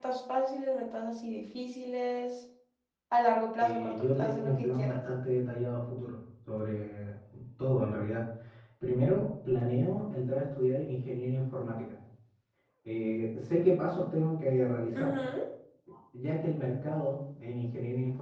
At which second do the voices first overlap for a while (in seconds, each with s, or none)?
3.6 s